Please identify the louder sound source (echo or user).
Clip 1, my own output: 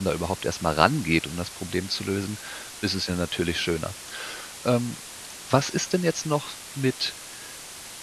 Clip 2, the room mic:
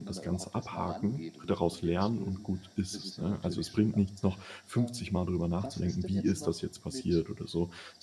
user